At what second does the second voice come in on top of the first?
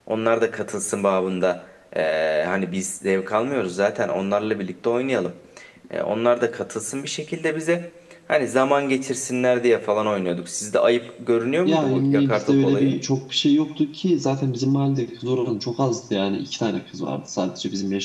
11.6 s

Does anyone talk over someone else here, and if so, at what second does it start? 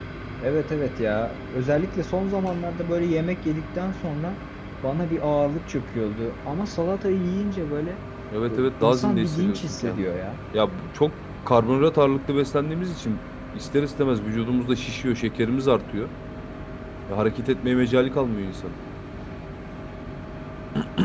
8.5 s

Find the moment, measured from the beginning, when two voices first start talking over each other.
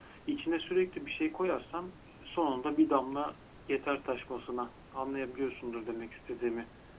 none

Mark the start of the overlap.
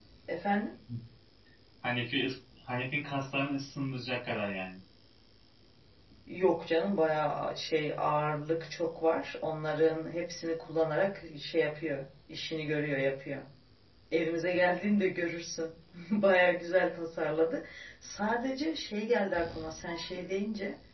none

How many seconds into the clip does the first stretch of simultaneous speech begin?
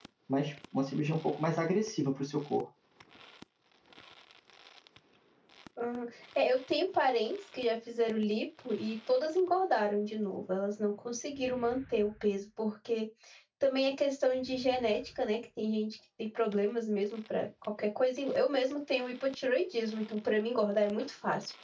none

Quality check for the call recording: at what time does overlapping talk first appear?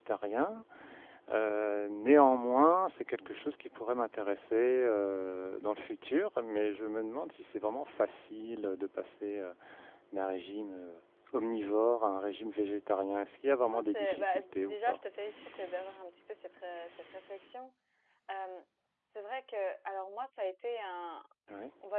13.7 s

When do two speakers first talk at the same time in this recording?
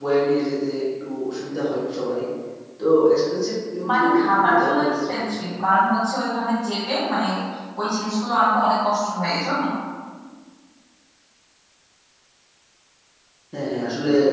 3.8 s

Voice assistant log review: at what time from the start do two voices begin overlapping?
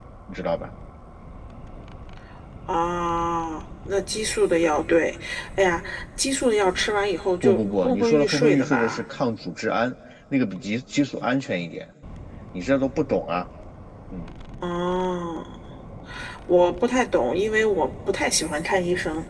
7.4 s

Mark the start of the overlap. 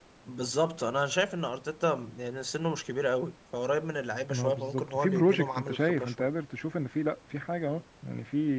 4.3 s

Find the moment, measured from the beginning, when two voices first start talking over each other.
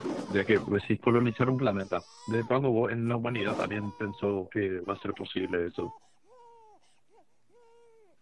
none

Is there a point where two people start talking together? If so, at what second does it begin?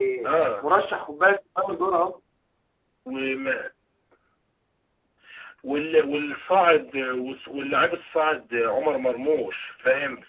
none

